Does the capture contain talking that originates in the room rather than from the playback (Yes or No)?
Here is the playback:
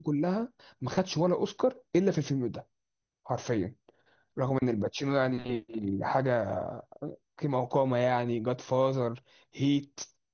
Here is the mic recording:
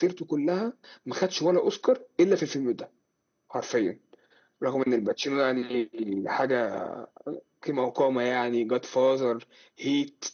No